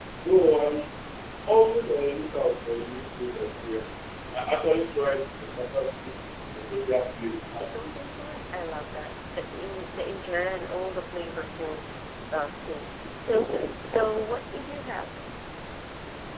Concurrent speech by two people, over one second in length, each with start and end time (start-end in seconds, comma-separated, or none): none